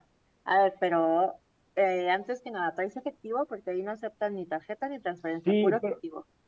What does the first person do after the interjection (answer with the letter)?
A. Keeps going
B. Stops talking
B